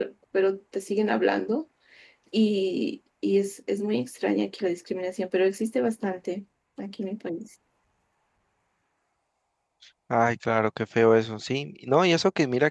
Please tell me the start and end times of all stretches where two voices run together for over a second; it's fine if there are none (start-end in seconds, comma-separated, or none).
none